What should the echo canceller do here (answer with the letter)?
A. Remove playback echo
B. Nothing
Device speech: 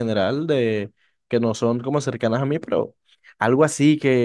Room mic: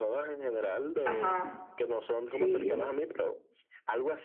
A